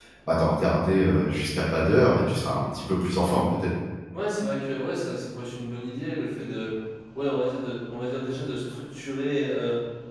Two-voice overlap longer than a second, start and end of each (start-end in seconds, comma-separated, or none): none